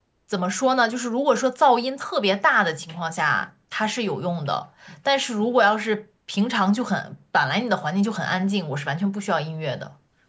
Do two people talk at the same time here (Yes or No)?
No